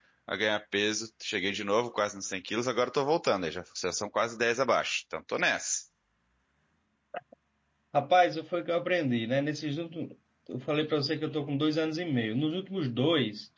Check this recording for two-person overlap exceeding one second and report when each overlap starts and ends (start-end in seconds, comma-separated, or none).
none